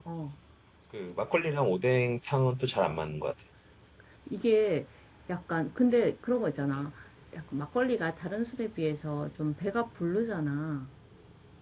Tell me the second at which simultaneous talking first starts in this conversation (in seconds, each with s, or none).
none